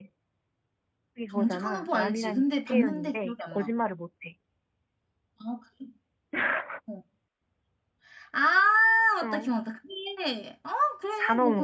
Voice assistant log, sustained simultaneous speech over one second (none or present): present